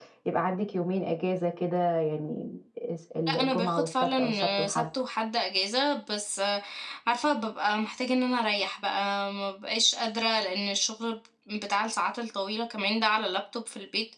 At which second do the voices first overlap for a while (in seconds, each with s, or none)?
3.3 s